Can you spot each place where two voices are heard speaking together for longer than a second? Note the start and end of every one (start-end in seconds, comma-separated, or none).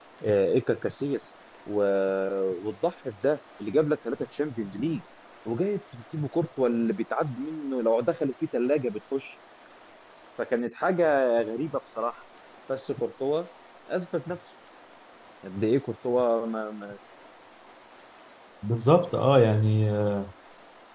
none